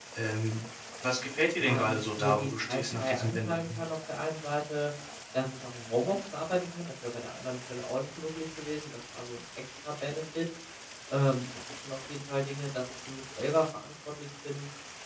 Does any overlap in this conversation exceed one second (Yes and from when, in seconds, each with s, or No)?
Yes, from 1.6 s